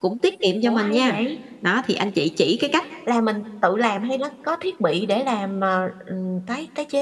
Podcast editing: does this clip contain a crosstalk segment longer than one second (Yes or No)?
No